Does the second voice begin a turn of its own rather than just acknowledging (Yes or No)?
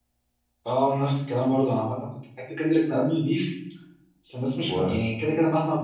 No